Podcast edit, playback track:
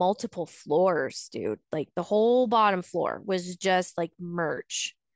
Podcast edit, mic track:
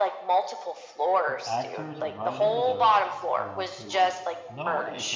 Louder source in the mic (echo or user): echo